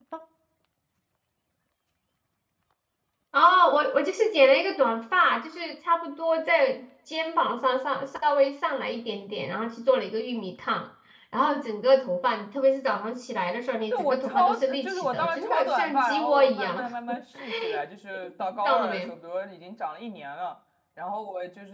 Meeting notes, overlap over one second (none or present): present